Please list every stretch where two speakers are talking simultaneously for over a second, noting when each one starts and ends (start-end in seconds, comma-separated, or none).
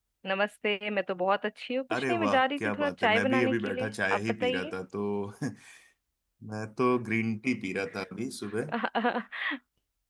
1.9-4.7